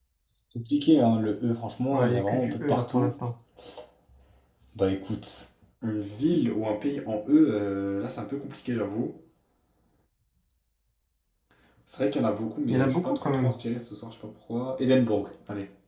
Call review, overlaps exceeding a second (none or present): present